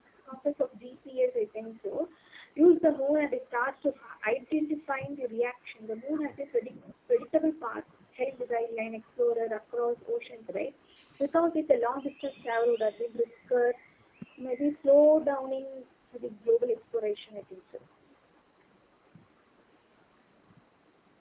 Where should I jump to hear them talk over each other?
none

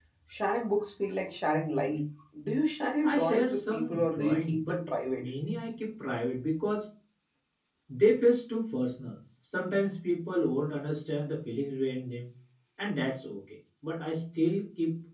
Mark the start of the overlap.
3.0 s

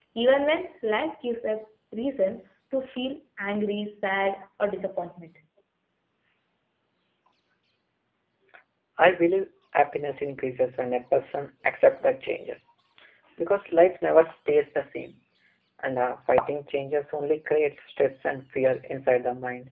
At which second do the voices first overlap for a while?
none

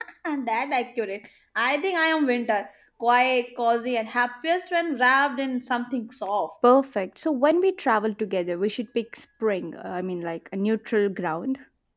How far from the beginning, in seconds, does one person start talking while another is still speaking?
none

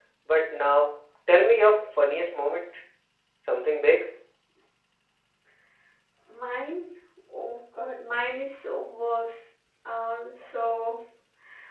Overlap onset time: none

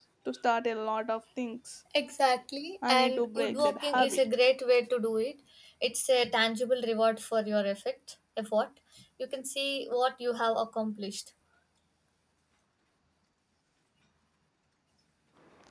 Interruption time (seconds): 2.8 s

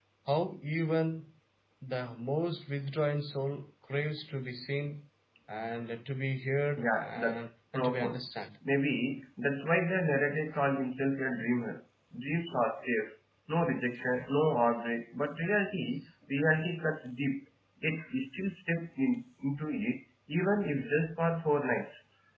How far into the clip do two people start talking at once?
6.8 s

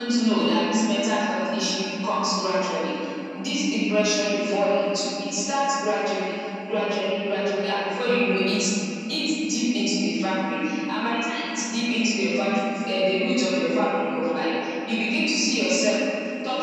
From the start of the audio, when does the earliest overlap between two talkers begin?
none

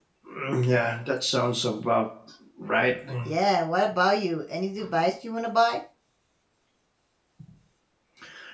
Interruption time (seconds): none

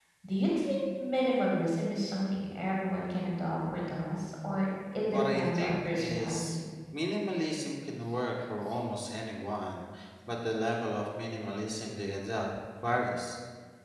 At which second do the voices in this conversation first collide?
5.1 s

